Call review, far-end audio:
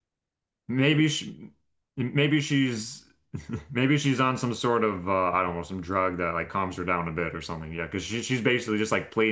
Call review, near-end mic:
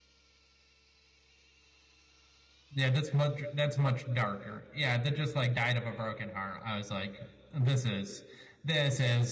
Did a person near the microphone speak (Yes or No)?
Yes